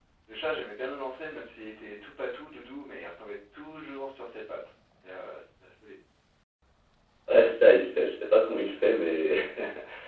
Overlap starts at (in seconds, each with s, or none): none